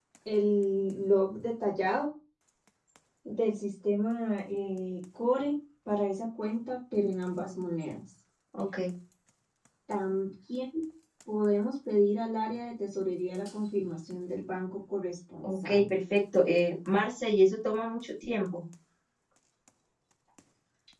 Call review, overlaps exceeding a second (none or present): none